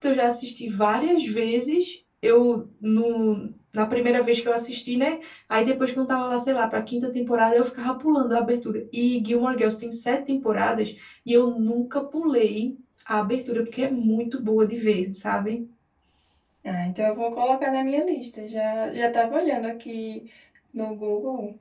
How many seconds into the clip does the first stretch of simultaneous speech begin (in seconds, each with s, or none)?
none